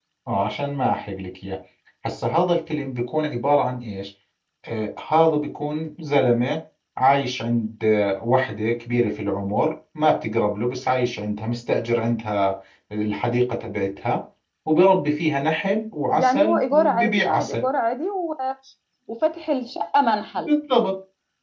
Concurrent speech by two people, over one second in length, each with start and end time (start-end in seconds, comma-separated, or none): 16.1-17.6